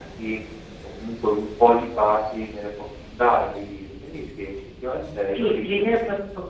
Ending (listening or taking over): taking over